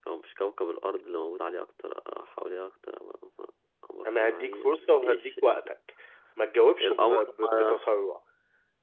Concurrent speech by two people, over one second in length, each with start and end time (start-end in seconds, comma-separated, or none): 4.0-5.7